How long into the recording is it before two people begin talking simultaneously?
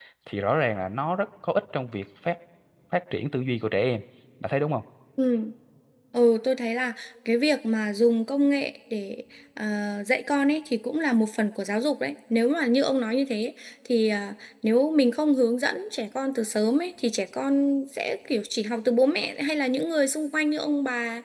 none

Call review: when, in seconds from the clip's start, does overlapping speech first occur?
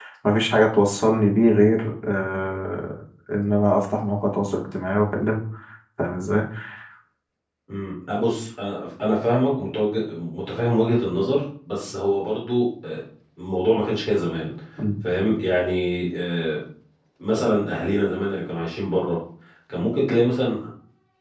none

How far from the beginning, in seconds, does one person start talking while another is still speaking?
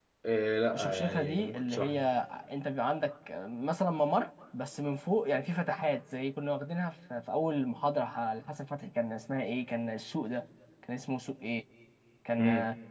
0.7 s

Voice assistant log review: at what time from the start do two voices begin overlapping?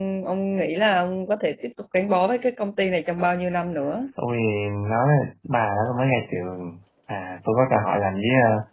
none

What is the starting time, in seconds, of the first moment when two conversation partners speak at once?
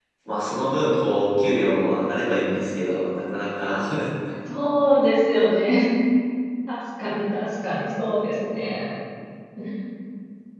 none

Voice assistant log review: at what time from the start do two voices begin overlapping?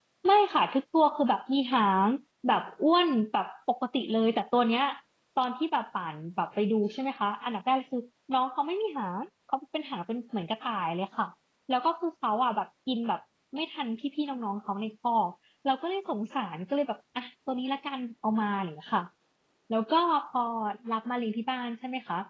none

